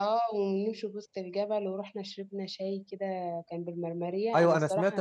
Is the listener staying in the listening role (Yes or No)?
No